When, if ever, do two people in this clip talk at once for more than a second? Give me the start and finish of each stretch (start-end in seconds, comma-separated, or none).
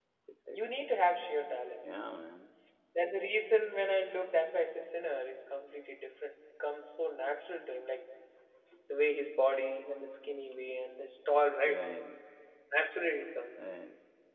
none